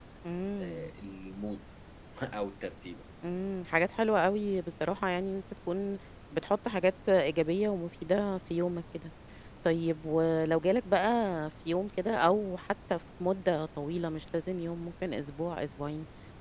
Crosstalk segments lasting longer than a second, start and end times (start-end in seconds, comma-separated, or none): none